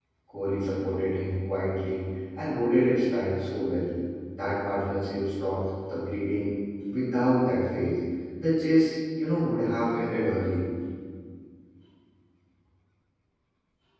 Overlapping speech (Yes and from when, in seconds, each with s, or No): No